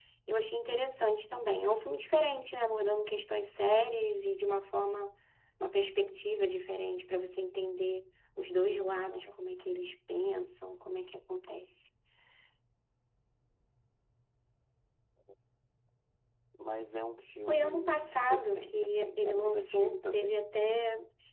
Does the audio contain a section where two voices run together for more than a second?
Yes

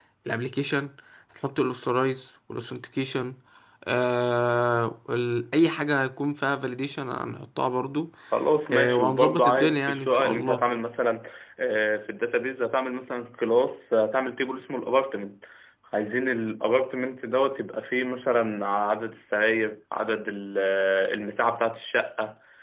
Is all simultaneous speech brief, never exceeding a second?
No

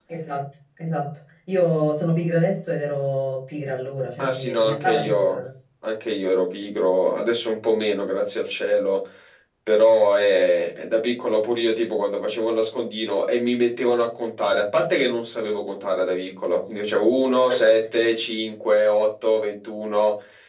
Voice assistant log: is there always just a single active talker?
No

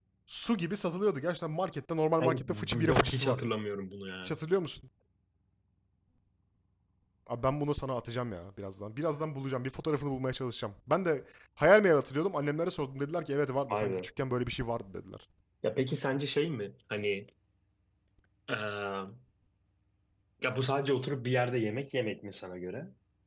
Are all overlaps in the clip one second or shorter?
No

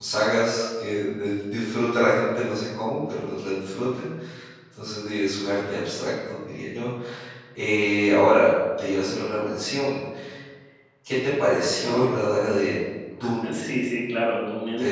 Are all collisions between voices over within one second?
Yes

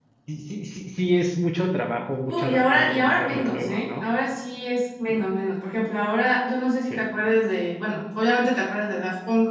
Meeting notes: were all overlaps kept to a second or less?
No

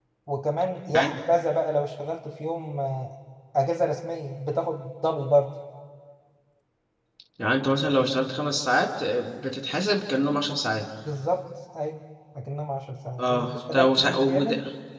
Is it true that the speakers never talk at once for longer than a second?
No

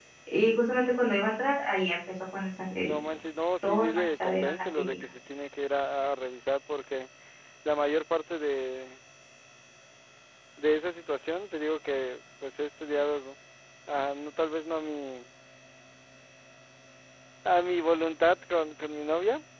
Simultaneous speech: Yes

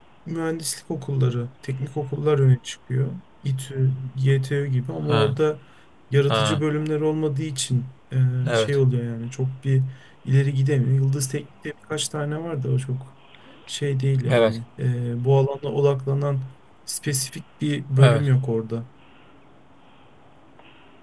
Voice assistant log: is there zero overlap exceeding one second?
Yes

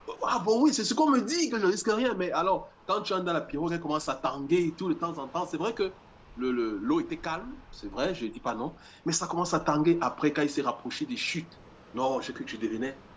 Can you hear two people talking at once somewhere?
No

